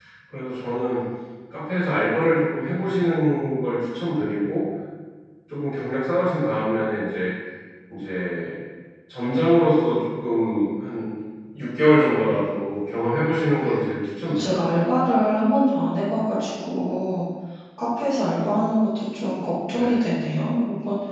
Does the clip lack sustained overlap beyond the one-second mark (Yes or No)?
Yes